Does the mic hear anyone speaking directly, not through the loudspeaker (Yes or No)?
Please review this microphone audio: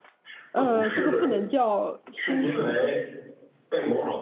Yes